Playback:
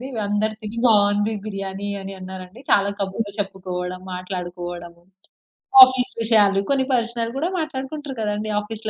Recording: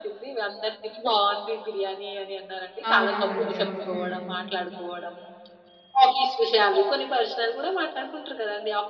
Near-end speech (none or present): present